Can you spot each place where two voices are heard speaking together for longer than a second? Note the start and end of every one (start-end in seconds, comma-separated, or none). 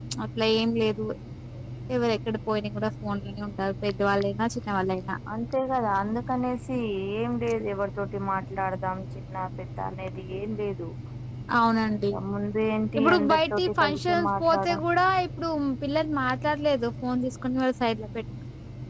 13.0-14.7